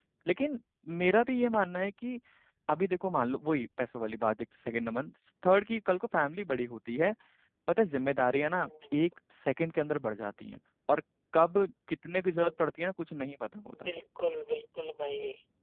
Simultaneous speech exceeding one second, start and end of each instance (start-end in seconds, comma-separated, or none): none